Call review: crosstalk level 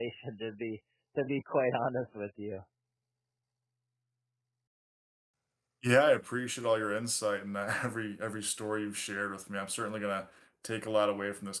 none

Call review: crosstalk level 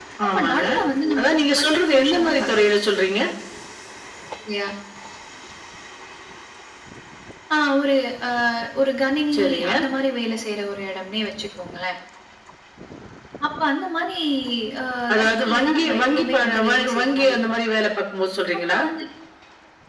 present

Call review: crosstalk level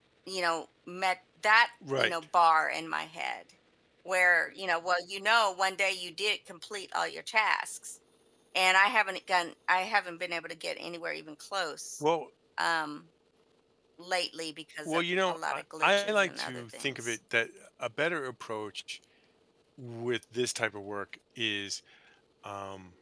present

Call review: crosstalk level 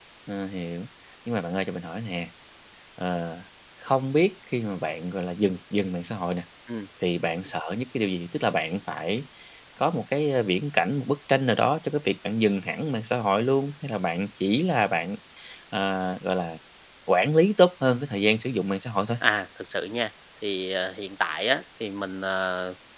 none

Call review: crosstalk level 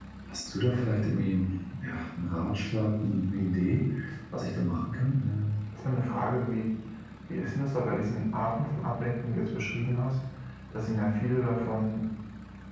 none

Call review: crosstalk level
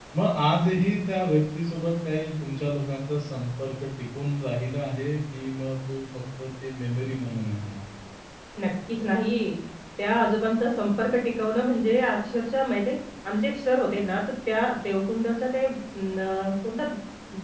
none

